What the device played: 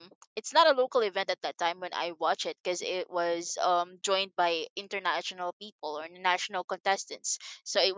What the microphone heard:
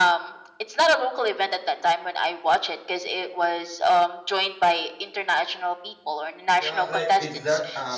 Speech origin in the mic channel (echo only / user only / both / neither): both